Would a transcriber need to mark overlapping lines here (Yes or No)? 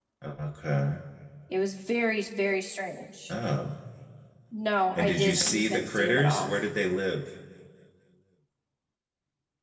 Yes